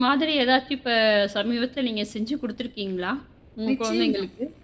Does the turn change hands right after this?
Yes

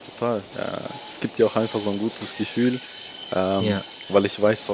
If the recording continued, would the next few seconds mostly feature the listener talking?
No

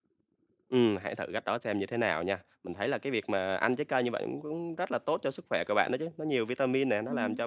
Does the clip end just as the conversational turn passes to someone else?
No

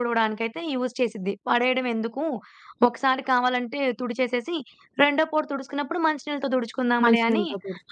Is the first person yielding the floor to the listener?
Yes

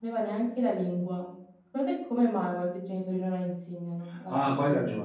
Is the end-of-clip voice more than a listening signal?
Yes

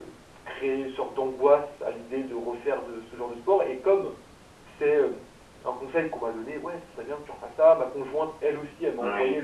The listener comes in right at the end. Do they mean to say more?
No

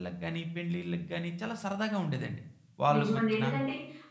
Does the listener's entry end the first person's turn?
Yes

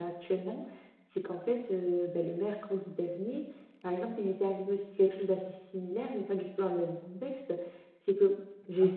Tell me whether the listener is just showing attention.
Yes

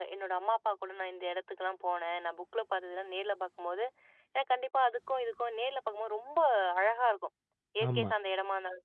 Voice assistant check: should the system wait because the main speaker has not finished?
Yes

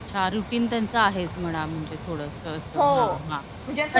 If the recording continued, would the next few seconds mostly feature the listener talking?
Yes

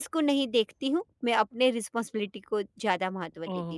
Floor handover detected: Yes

